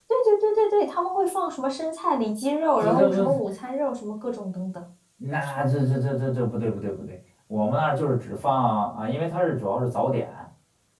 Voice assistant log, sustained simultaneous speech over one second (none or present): none